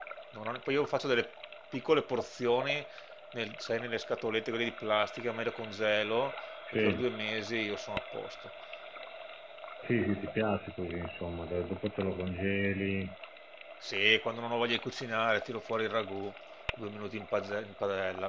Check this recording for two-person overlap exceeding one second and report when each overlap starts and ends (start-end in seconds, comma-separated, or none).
none